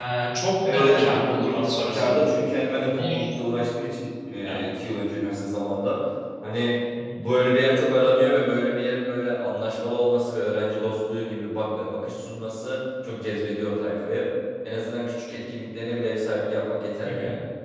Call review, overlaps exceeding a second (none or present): present